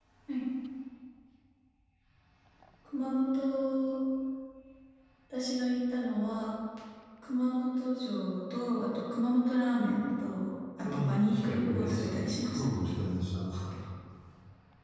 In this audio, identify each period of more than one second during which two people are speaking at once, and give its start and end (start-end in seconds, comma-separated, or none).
10.9-12.7